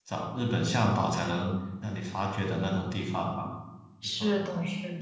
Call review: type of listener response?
taking over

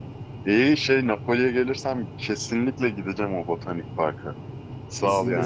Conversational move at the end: taking over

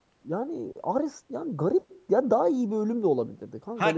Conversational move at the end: taking over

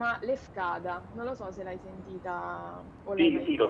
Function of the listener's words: taking over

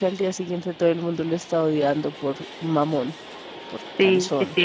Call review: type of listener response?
taking over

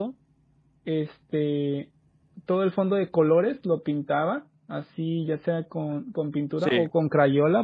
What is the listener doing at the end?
listening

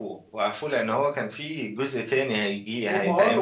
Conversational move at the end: taking over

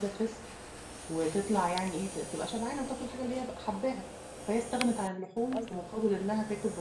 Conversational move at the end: listening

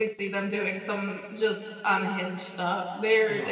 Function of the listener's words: taking over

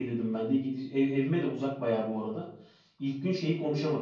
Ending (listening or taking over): listening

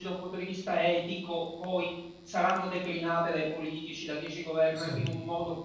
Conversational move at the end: listening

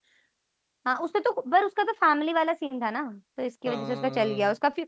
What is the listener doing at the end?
listening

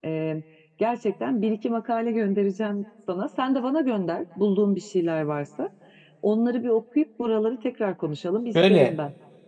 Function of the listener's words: taking over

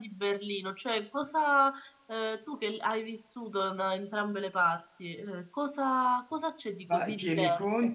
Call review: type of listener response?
taking over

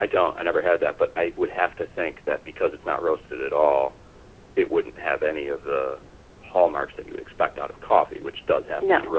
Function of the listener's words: listening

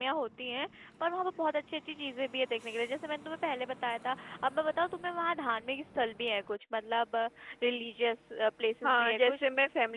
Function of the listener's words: taking over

